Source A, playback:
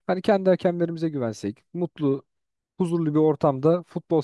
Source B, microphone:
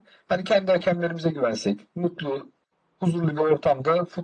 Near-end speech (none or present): none